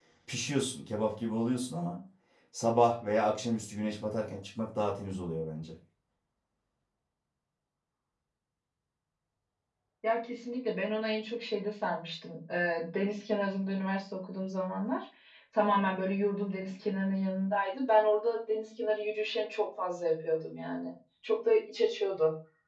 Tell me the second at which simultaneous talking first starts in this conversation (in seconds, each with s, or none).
none